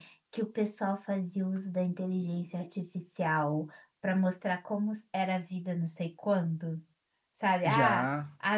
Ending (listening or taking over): listening